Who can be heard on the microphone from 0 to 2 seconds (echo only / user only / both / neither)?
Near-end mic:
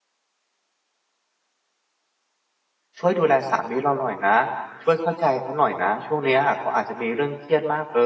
neither